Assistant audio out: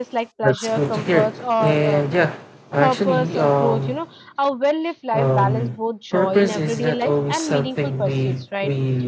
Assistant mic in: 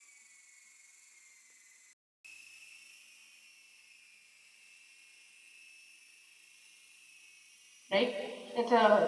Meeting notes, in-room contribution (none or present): present